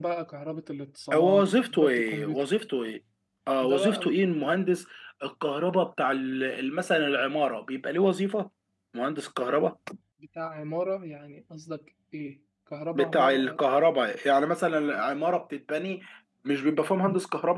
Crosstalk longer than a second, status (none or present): present